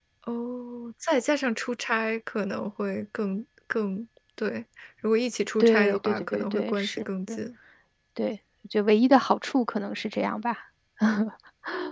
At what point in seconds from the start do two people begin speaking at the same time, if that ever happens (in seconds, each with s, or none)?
5.6 s